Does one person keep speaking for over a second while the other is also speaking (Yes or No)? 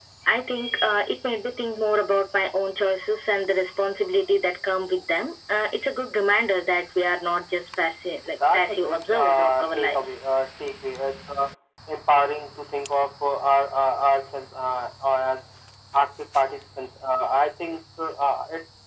Yes